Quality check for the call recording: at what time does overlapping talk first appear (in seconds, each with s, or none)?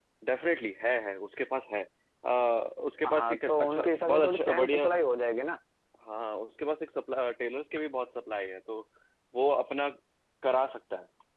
3.0 s